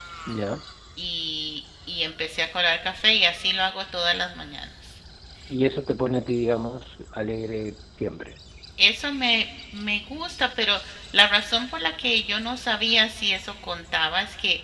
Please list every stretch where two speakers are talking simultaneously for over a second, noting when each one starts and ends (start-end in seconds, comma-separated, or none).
none